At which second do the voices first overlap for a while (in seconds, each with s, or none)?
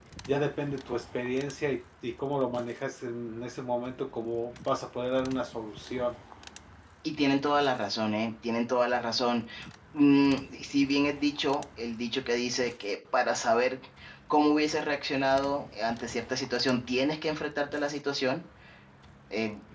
none